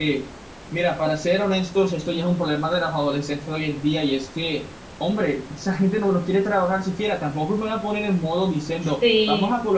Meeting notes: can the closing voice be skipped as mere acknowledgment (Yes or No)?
Yes